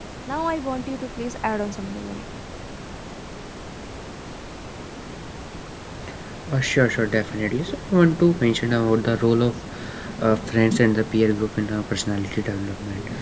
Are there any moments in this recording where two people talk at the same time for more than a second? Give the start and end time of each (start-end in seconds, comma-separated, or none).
none